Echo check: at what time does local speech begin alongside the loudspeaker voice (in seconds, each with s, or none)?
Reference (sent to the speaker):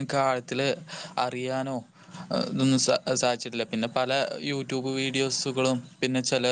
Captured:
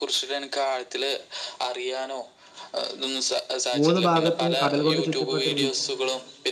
3.8 s